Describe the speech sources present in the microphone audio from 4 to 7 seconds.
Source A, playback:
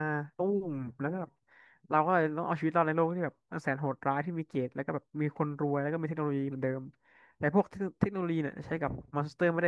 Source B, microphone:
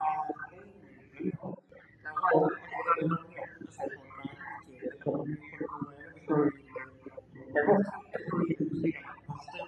echo only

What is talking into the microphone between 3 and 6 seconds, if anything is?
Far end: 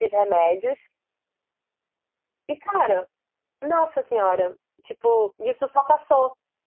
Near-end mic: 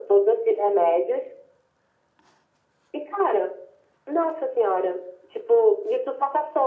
echo only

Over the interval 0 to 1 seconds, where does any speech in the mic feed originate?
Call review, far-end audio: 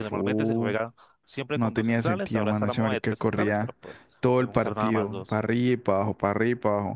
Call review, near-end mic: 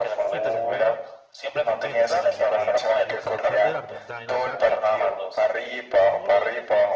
both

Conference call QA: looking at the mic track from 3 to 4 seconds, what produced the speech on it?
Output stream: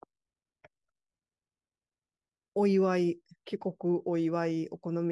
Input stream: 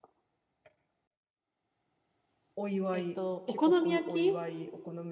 both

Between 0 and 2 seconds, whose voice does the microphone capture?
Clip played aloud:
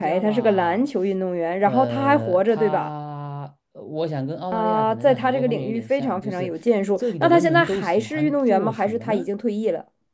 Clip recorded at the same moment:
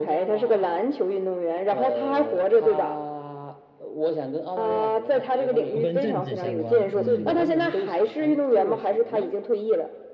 echo only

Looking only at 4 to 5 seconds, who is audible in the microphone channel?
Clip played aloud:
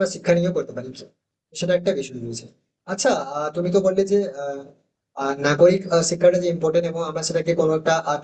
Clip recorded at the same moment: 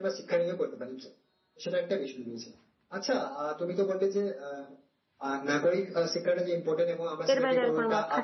echo only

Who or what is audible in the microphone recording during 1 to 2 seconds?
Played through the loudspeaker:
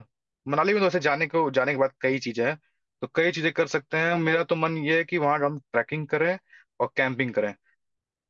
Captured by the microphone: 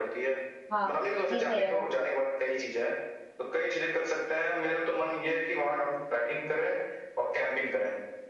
both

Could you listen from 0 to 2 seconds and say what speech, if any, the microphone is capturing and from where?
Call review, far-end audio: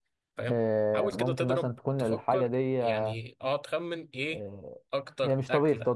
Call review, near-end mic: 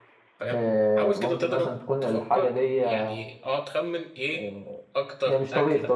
echo only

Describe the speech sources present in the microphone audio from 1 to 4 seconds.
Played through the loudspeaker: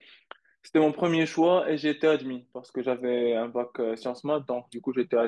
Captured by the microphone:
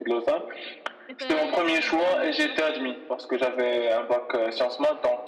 both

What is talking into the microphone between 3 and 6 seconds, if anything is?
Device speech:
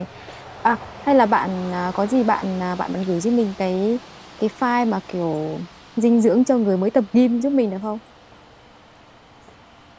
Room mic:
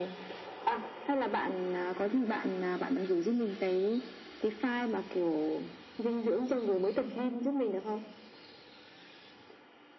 echo only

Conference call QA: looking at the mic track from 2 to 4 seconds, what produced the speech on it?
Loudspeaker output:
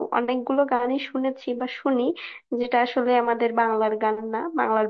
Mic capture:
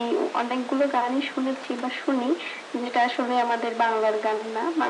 echo only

